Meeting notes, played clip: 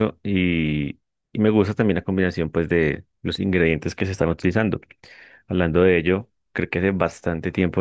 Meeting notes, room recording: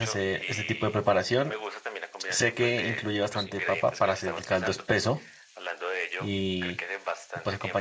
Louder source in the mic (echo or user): user